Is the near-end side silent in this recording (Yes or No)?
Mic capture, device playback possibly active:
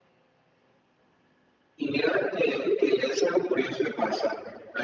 Yes